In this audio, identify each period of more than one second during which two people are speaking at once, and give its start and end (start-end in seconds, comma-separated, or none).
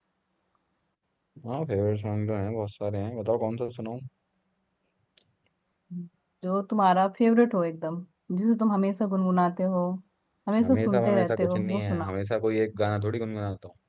10.6-12.1